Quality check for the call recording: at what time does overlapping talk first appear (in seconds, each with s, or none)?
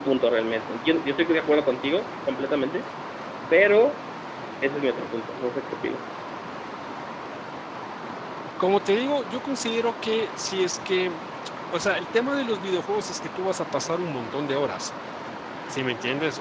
none